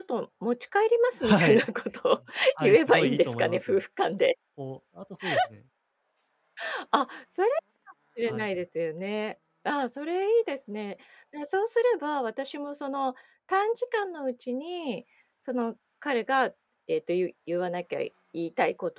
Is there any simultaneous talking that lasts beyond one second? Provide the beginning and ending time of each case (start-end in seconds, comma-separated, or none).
2.6-3.8